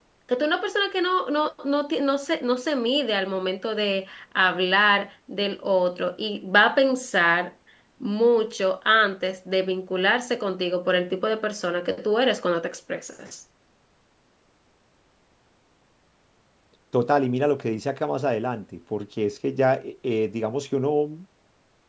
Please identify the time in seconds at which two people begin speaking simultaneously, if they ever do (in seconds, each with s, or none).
none